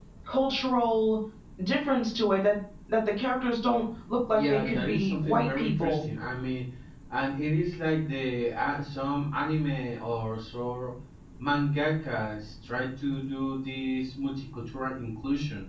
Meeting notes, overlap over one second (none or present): present